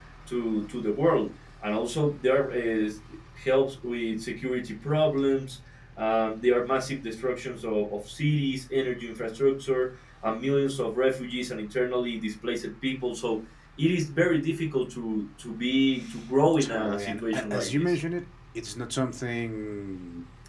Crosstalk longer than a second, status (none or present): present